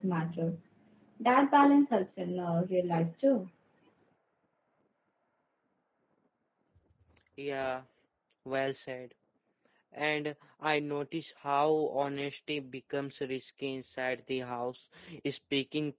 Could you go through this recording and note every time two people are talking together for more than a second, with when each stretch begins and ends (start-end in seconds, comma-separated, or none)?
none